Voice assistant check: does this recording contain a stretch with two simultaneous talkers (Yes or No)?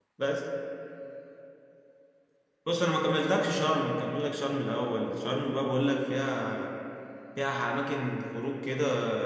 No